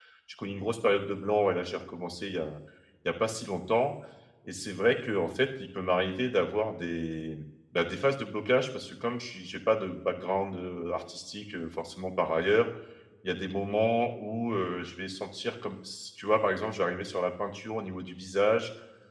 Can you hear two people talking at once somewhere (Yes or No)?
No